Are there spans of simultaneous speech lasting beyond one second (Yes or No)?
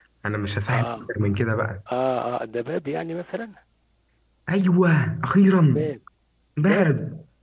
No